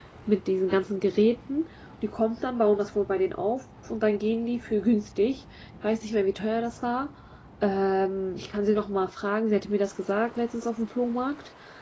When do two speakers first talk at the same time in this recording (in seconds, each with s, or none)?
none